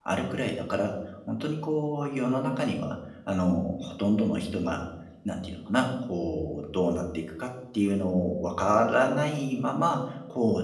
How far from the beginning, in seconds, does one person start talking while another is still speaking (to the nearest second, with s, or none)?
none